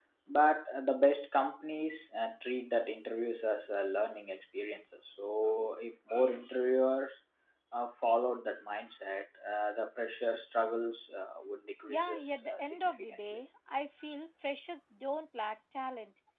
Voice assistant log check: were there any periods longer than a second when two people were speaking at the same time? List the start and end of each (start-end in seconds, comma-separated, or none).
11.8-13.4